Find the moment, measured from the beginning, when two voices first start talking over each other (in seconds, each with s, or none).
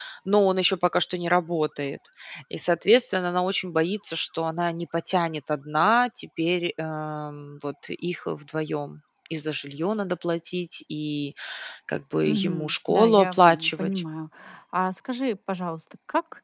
12.2 s